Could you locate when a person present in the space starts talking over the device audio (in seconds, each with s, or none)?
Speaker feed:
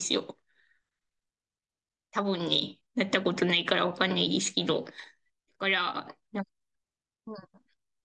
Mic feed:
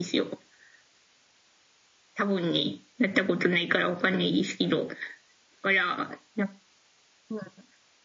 none